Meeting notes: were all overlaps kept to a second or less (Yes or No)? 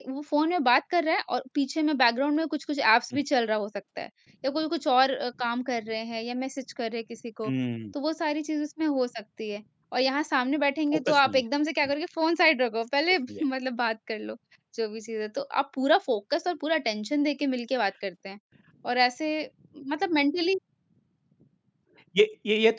Yes